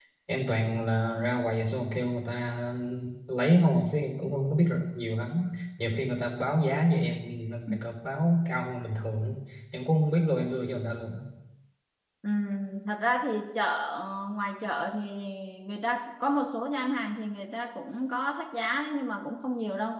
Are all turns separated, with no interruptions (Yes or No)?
Yes